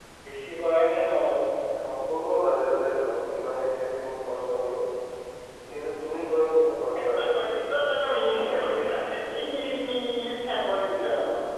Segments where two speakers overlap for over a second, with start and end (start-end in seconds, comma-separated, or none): none